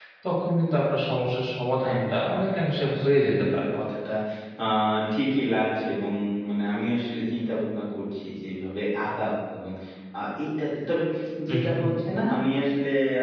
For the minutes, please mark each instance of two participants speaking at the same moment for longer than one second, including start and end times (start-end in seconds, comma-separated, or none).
1.9-3.6